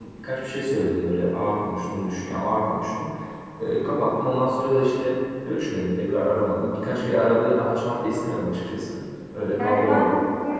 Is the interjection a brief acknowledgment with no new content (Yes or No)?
No